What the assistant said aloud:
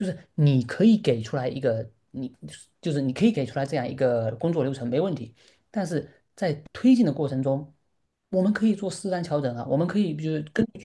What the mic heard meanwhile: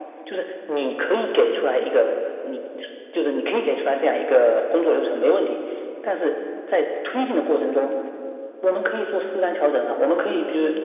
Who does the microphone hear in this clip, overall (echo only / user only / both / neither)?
echo only